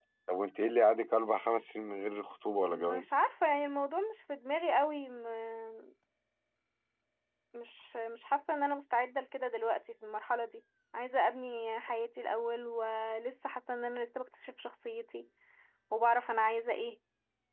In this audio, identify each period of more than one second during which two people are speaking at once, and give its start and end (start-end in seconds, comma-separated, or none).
none